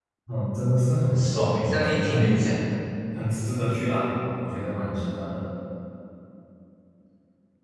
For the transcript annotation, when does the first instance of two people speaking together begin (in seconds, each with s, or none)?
1.1 s